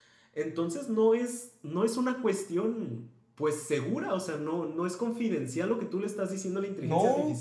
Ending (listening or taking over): taking over